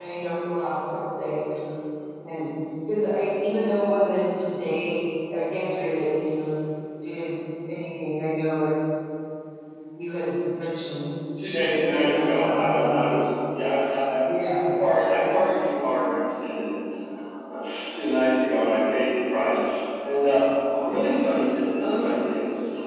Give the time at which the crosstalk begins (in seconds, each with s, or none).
11.7 s